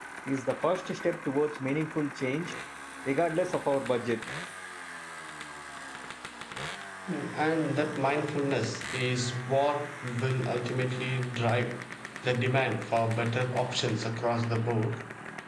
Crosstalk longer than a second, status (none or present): none